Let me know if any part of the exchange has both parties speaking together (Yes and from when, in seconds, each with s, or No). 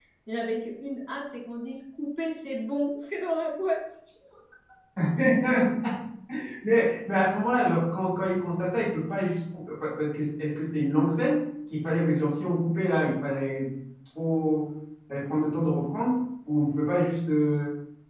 No